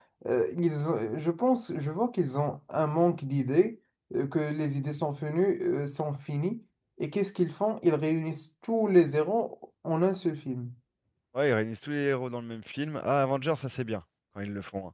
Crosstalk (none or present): none